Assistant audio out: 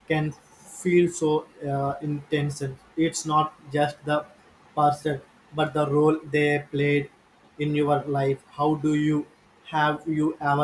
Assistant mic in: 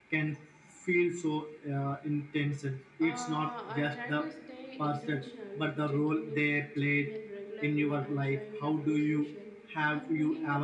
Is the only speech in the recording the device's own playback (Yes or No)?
No